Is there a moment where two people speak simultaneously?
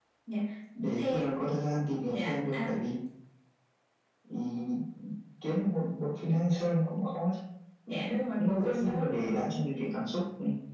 Yes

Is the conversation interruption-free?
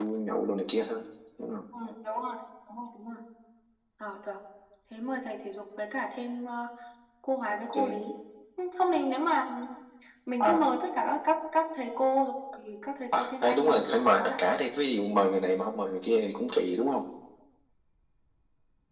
No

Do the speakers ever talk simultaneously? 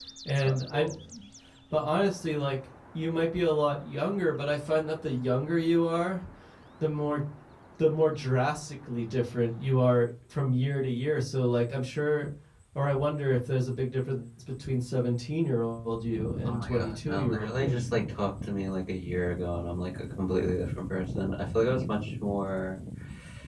Yes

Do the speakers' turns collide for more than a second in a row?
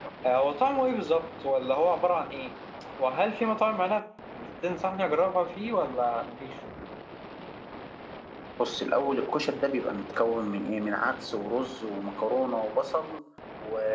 No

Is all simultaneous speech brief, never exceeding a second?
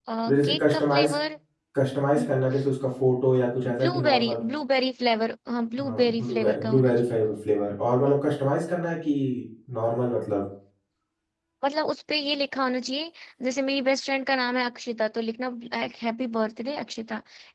No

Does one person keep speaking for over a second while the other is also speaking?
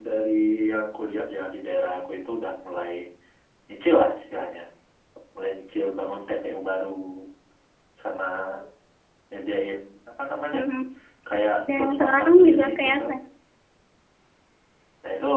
Yes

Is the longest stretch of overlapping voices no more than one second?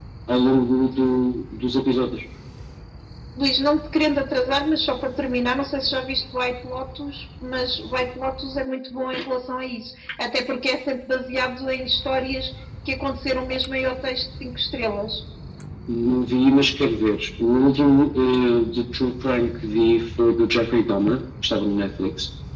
Yes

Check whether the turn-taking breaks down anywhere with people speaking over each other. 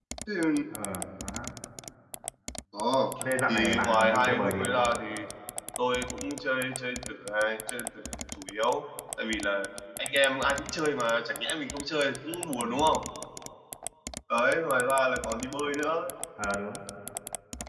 Yes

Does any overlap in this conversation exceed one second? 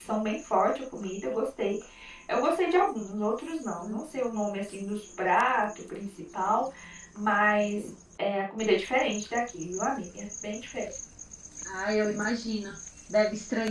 No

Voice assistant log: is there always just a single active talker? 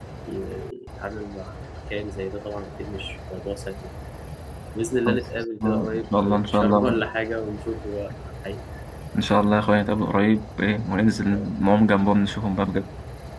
No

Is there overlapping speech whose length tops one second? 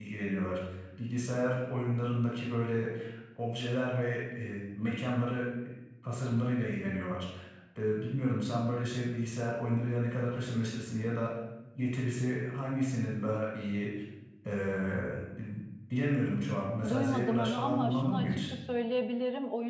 Yes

